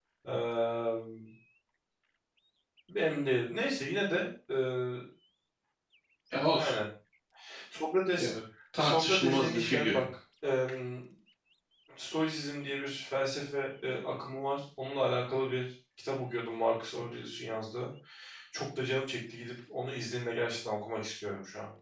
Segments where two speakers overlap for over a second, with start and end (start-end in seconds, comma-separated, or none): 8.8-10.0